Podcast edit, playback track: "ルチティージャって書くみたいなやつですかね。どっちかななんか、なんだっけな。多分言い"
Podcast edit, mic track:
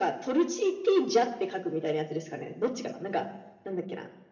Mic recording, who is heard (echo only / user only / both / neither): echo only